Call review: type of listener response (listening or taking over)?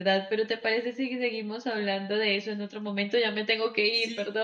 taking over